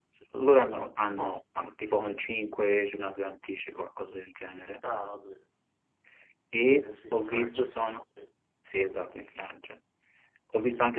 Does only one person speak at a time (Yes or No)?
No